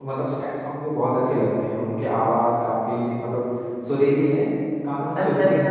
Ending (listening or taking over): taking over